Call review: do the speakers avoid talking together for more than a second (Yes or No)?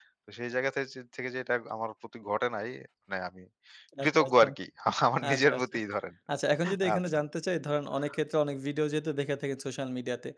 Yes